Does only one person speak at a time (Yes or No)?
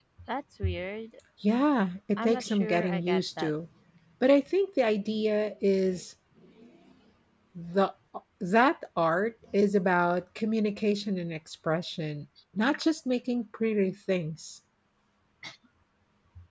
No